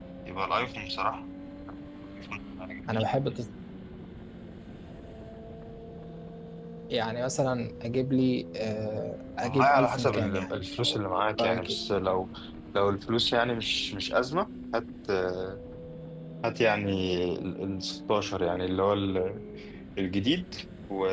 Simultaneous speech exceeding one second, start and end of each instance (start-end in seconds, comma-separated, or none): 9.4-11.8